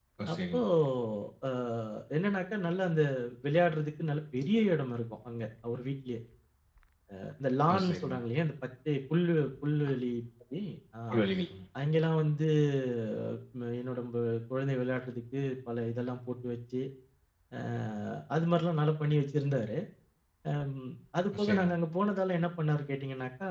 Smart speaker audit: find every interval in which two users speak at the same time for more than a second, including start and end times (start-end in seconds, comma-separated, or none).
none